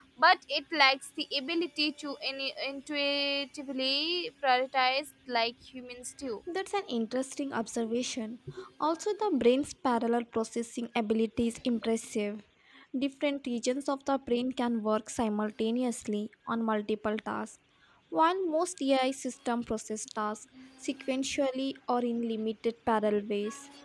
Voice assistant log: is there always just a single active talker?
Yes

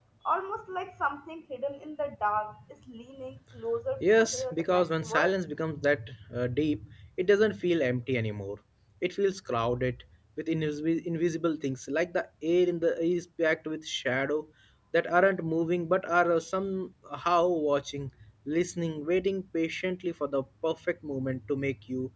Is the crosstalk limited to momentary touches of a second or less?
No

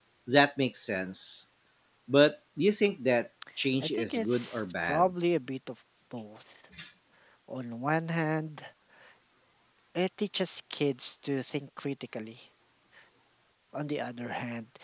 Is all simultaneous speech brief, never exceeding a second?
No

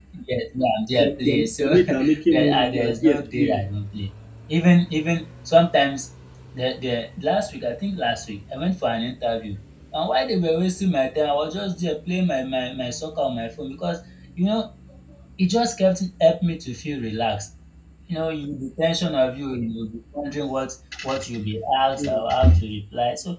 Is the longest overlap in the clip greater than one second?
Yes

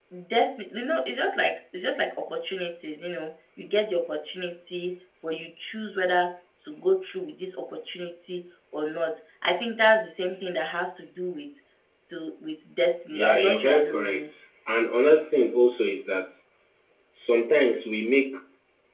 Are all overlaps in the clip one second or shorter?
No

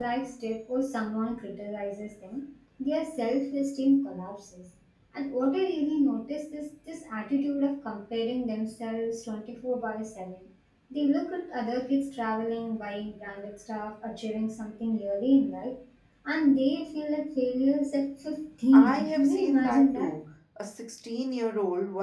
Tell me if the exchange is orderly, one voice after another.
No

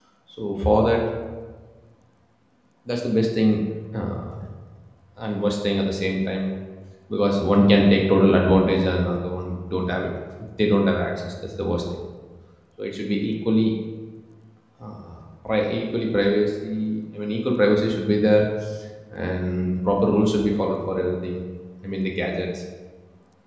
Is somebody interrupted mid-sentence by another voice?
No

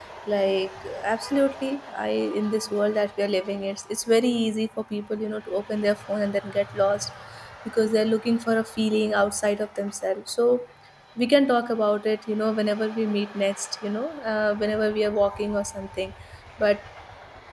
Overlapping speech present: No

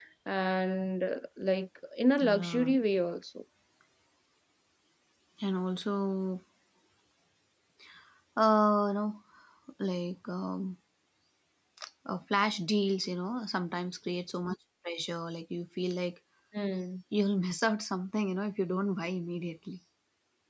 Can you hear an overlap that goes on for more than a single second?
No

